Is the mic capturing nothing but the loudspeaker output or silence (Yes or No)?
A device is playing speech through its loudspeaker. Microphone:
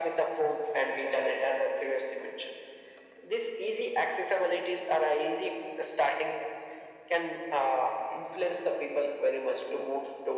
Yes